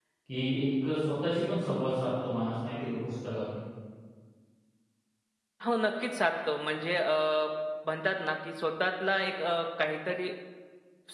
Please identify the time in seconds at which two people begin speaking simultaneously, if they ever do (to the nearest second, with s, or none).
none